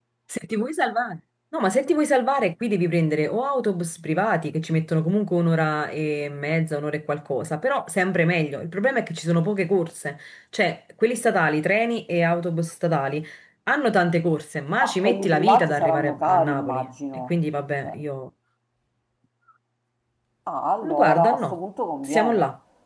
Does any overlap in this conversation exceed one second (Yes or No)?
Yes